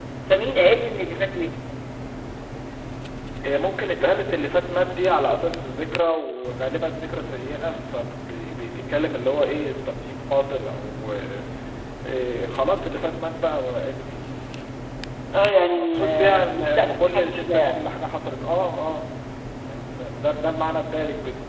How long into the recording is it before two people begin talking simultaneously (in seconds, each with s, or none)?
15.7 s